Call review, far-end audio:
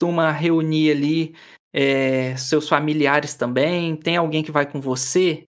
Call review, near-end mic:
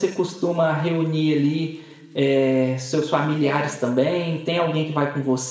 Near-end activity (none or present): present